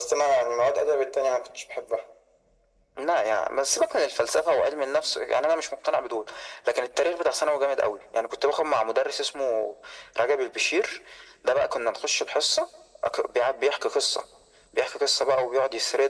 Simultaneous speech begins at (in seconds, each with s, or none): none